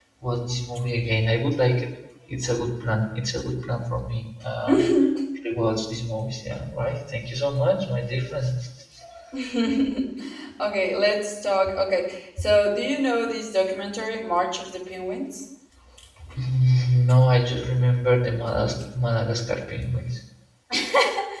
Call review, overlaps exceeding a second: none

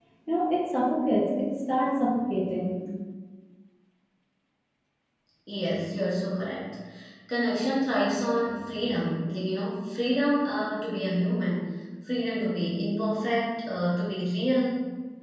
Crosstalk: none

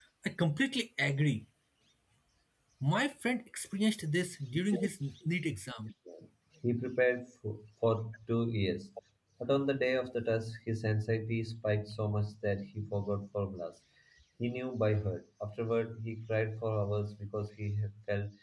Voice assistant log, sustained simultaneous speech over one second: none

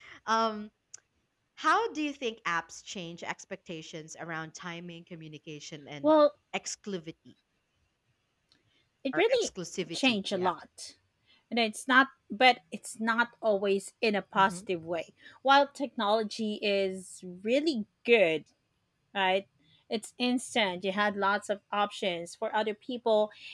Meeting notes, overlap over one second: none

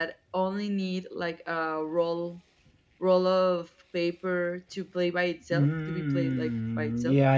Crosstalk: present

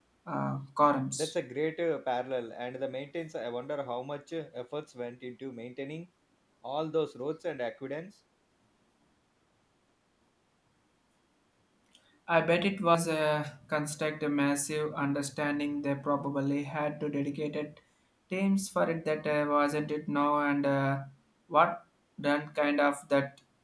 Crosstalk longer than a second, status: none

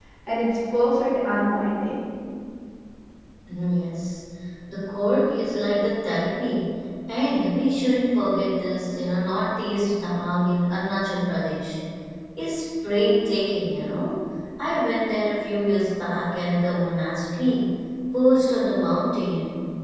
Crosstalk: none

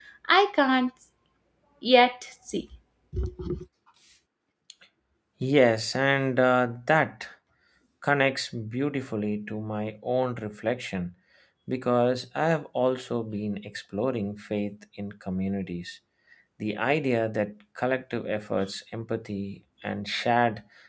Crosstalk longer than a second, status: none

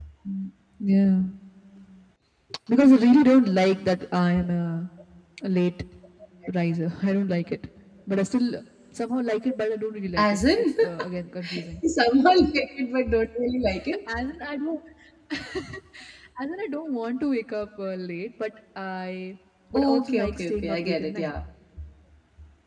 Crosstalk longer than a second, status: present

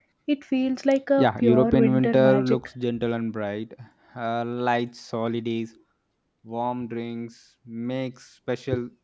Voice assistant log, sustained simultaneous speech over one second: present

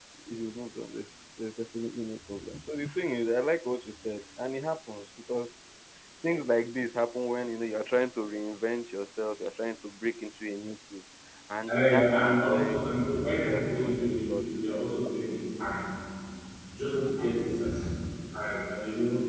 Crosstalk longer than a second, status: present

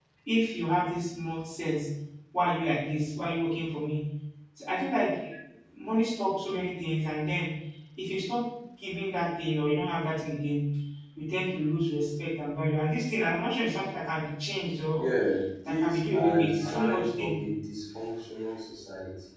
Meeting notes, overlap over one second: present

